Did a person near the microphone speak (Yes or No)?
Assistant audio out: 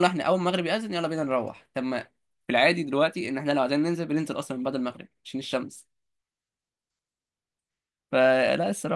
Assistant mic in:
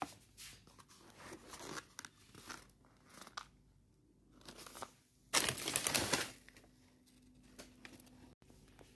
No